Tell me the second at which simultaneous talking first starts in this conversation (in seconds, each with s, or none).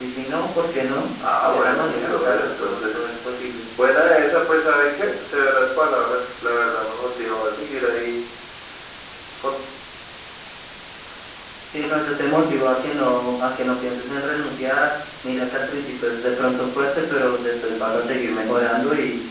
1.2 s